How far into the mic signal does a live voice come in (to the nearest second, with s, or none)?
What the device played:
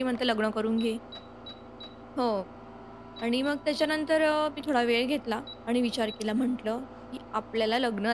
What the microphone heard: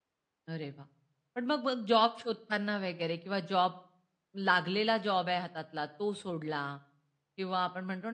0 s